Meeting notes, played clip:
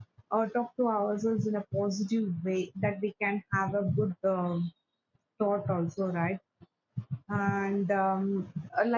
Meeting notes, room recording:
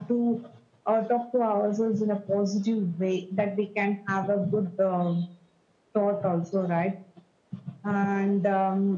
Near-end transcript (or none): none